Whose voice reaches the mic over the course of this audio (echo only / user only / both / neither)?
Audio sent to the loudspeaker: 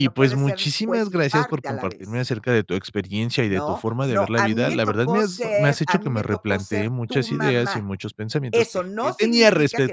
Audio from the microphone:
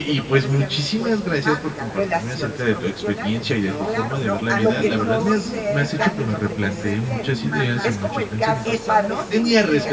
both